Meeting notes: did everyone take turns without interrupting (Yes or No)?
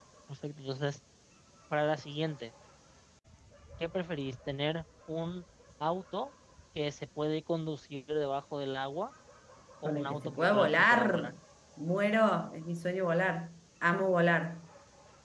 No